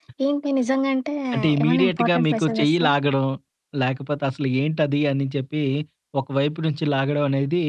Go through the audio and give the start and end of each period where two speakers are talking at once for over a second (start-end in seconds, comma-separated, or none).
1.6-2.9